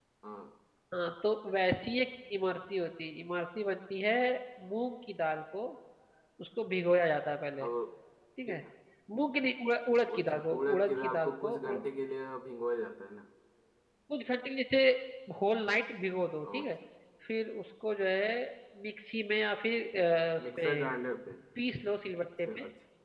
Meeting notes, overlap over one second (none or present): present